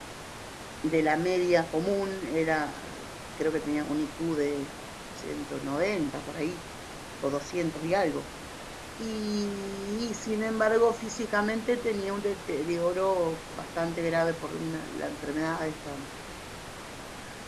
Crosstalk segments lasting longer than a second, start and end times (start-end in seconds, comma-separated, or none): none